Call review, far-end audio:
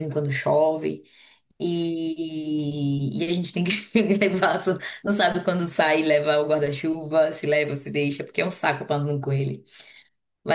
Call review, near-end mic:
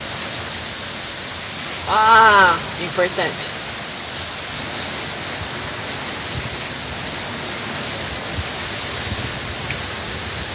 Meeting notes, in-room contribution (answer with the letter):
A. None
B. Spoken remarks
B